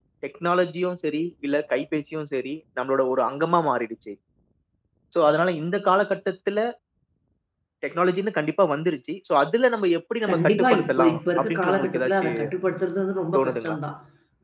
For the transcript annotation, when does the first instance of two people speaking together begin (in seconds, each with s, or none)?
10.3 s